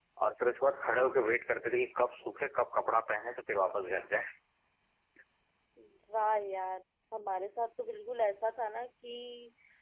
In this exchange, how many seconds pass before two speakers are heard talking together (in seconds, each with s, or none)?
none